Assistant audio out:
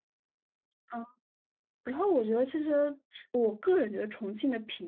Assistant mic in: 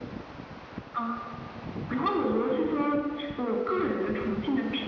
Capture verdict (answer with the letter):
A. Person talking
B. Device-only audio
B